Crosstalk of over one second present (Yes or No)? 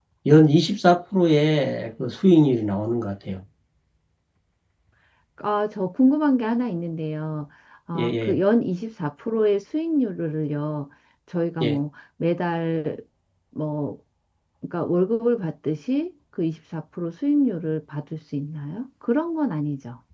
No